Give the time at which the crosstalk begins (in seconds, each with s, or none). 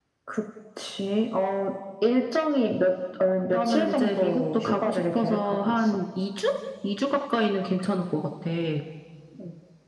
3.5 s